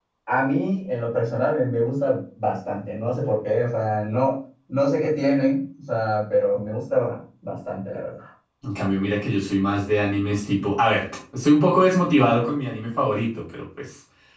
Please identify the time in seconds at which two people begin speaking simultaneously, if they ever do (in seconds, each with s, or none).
none